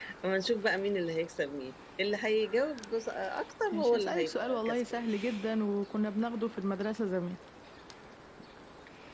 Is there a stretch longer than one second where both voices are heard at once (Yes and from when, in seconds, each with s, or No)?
Yes, from 3.7 s